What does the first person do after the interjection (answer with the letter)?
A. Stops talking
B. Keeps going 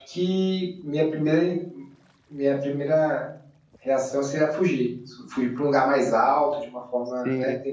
B